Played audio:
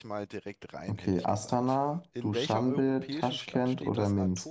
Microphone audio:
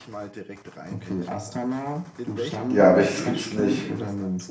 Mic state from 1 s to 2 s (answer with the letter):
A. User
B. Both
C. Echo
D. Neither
C